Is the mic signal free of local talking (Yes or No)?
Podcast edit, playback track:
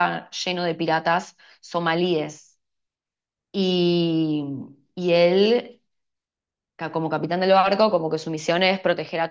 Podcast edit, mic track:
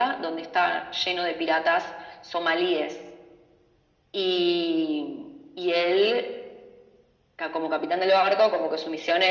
Yes